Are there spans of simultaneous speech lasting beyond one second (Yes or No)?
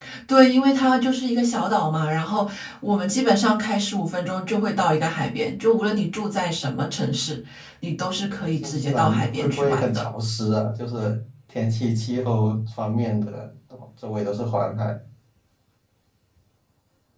Yes